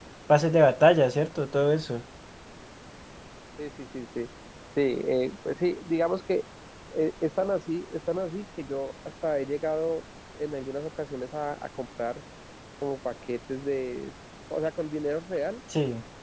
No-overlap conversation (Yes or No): Yes